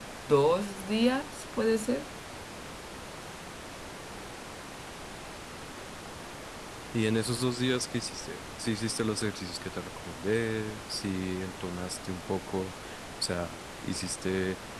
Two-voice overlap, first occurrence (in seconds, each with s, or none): none